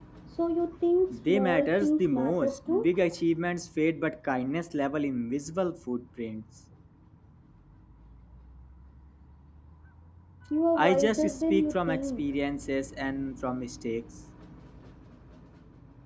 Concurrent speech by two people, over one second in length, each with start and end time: 1.1-2.9, 10.8-12.2

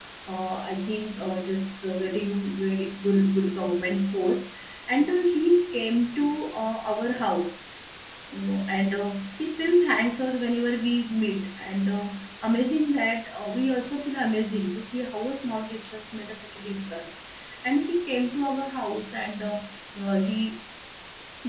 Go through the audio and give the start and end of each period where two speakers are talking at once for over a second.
none

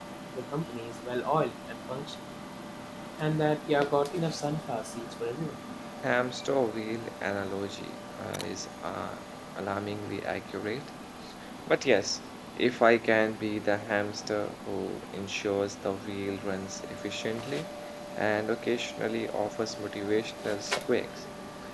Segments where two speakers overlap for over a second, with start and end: none

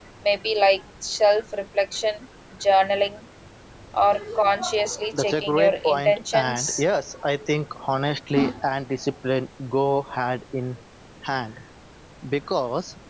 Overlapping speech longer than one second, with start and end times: 5.2-6.8

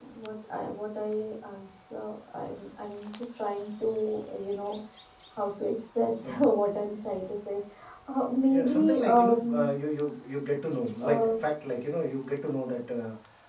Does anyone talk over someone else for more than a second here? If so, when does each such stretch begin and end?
8.5-9.7

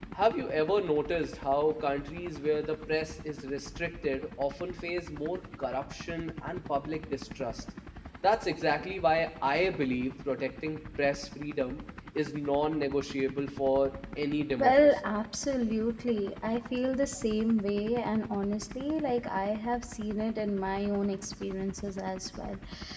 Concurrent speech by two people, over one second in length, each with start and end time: none

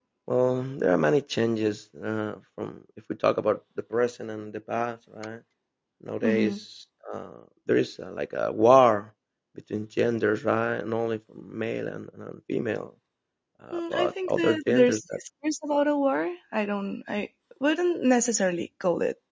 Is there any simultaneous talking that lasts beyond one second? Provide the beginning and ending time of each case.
13.7-15.0

